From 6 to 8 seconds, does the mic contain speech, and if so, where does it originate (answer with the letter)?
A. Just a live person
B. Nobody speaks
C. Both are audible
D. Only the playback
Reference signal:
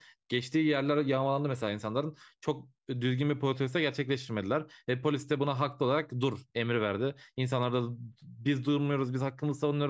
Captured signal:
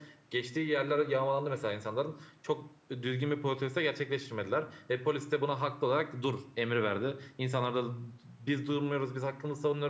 D